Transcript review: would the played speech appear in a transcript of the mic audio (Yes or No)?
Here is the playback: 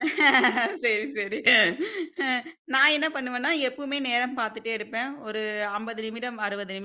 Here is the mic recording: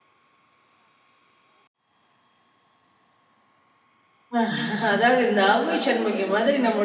No